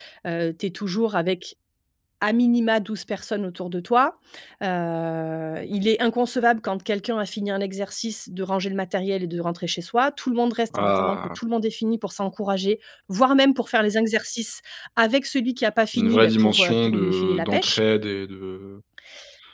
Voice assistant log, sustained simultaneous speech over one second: present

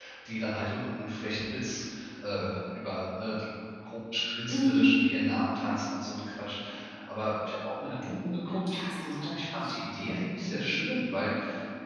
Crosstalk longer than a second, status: present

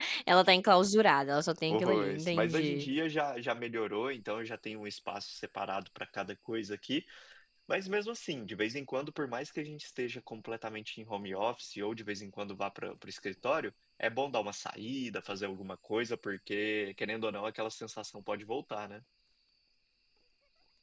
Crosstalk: present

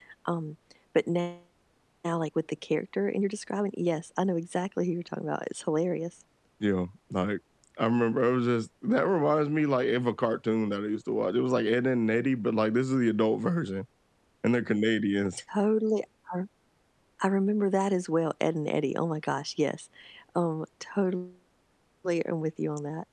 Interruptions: none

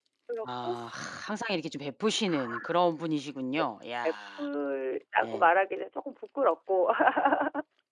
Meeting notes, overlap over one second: none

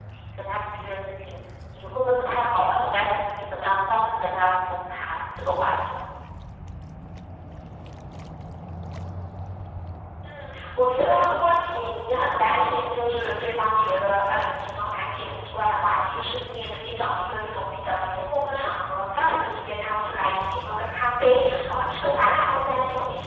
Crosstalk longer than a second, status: none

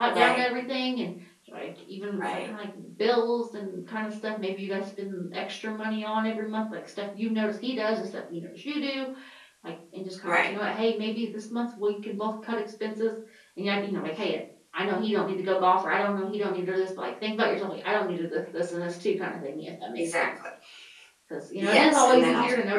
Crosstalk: present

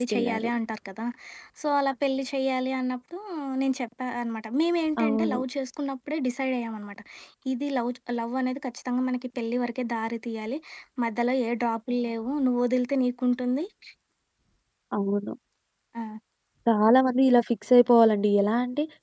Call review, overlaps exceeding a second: none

